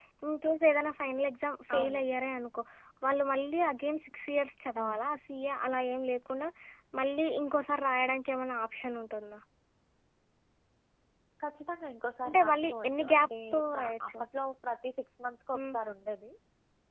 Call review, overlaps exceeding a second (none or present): present